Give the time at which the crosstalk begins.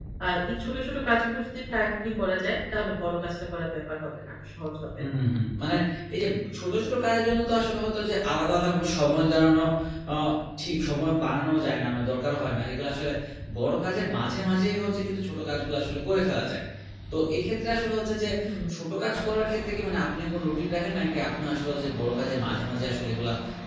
none

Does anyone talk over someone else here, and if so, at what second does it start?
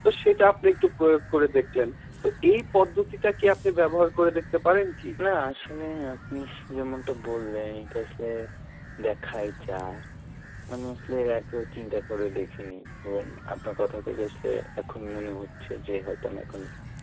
none

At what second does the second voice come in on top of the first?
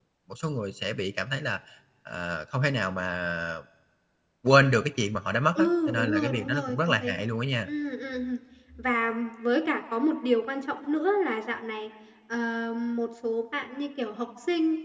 5.6 s

